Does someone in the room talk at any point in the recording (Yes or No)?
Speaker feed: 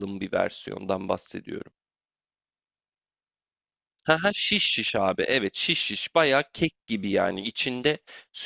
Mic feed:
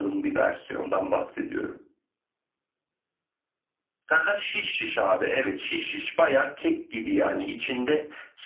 No